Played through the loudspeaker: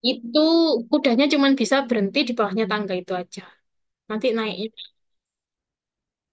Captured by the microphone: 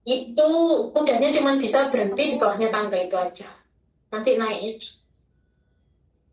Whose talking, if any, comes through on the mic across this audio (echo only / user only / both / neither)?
both